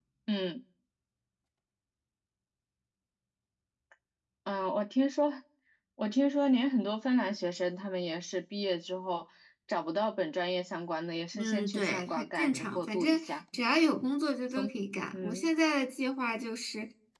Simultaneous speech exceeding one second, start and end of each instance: 11.3-13.4

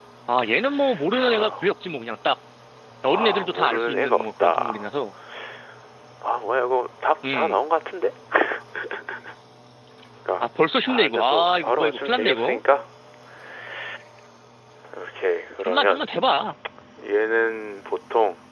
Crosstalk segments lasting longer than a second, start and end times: 3.1-4.8, 10.9-12.6

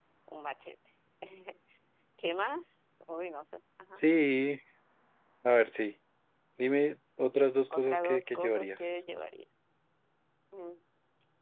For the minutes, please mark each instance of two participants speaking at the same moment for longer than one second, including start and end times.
7.7-8.9

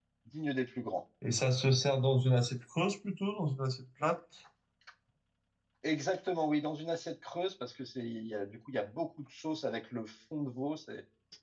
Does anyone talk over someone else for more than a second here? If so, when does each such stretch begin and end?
none

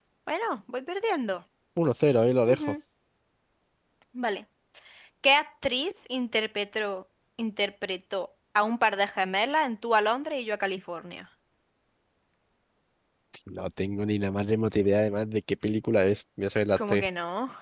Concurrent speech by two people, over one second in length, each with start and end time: none

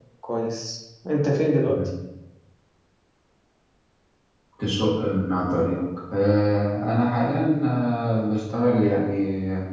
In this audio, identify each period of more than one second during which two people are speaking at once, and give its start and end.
none

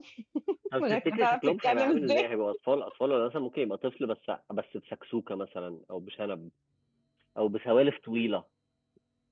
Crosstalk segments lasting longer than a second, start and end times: 0.8-2.3

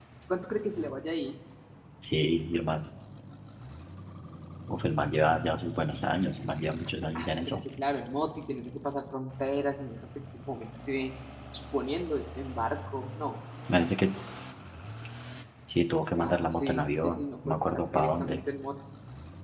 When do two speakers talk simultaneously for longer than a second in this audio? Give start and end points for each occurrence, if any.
16.2-18.4

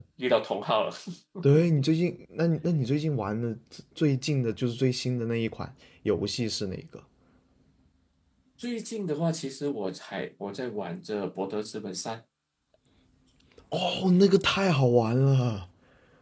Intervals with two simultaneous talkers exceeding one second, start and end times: none

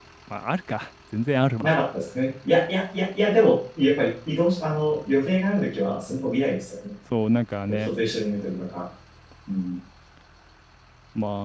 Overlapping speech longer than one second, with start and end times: none

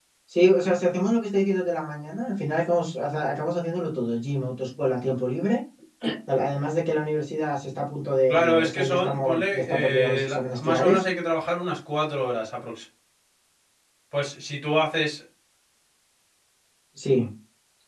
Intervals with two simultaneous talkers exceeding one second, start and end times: 8.3-11.0

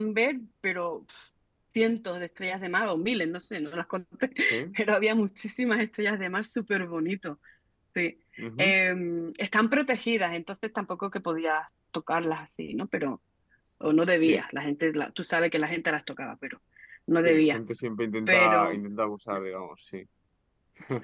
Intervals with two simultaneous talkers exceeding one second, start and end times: none

